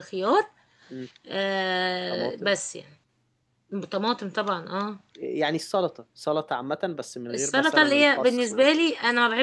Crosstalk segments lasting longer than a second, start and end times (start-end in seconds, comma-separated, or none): 7.3-8.7